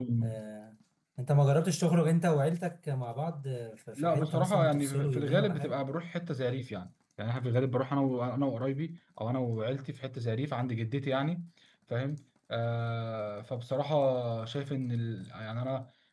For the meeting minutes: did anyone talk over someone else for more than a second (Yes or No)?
Yes